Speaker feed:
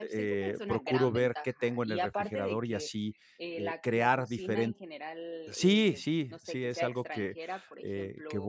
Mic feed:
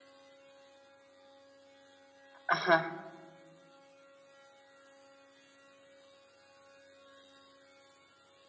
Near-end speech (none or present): present